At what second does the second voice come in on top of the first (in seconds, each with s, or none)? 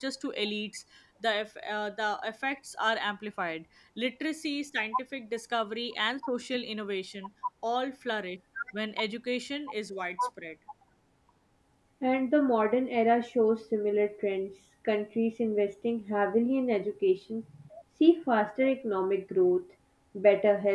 none